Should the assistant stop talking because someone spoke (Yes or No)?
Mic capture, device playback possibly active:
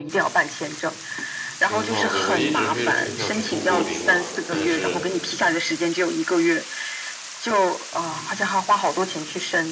Yes